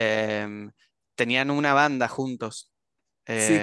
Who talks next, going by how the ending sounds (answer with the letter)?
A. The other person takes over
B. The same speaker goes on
A